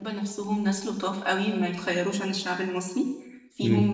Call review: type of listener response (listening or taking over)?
listening